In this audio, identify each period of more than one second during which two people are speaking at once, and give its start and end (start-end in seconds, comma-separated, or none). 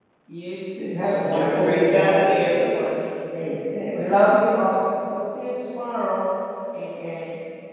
1.2-2.8